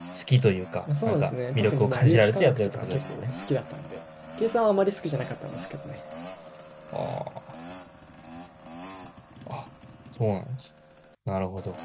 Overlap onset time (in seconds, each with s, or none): 1.0 s